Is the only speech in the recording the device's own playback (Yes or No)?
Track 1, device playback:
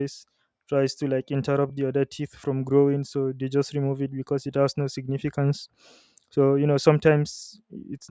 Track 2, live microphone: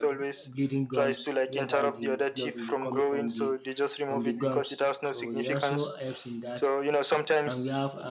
No